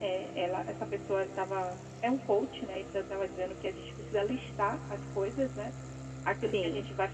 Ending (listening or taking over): listening